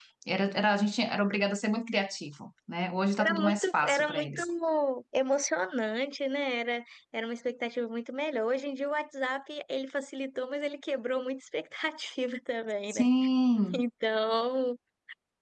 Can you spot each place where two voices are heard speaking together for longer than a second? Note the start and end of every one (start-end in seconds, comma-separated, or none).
3.2-4.4